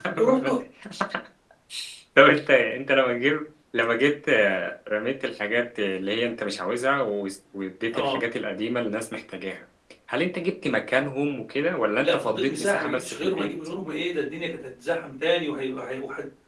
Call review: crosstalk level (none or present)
present